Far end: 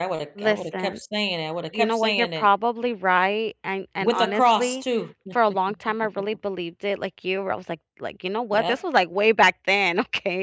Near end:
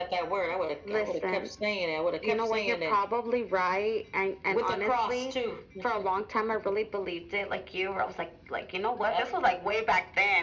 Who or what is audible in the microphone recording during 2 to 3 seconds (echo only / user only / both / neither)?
echo only